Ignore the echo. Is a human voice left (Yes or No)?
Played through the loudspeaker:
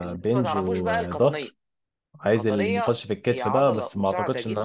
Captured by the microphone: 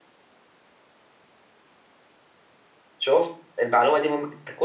Yes